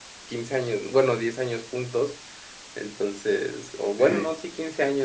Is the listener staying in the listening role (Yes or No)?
Yes